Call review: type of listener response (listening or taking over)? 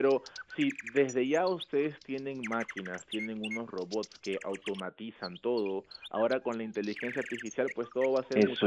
taking over